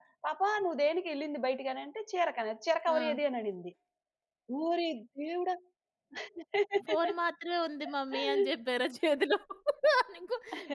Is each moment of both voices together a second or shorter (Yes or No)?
Yes